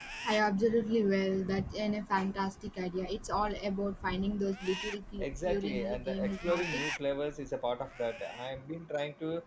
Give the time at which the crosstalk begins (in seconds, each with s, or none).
5.2 s